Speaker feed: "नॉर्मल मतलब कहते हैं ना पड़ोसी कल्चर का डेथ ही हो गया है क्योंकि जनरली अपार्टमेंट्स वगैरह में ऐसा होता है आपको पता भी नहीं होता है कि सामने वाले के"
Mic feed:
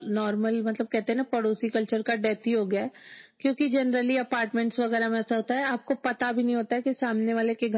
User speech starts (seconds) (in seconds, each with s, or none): none